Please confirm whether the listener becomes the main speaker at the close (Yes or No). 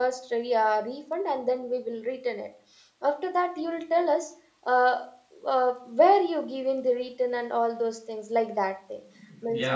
Yes